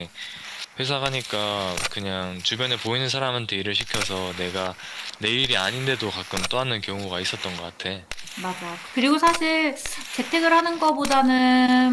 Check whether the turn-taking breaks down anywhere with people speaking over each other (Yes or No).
No